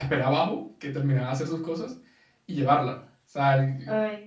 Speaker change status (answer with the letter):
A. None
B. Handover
B